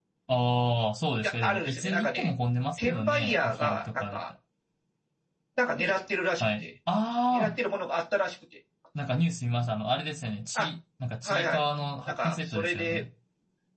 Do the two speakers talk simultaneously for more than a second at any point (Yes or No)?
Yes